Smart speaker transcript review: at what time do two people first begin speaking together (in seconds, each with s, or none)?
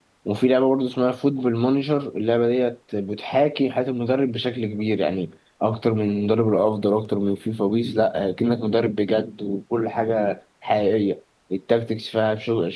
none